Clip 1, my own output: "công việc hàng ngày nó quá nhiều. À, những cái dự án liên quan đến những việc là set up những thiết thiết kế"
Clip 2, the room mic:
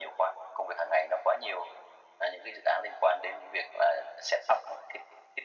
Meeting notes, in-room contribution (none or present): none